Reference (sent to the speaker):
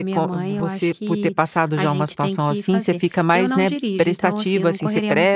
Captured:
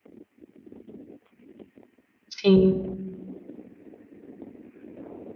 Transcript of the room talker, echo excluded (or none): Sim.